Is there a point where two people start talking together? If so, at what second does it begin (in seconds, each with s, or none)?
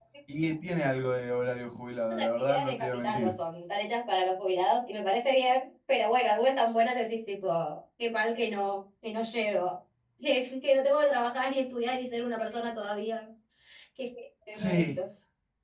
2.1 s